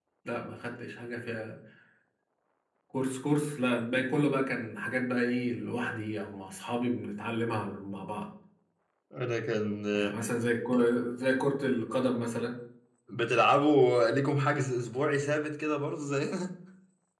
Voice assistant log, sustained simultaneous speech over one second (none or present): none